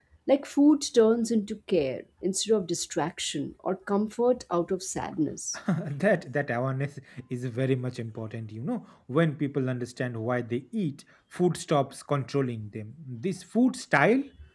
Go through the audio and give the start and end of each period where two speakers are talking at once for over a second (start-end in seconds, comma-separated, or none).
none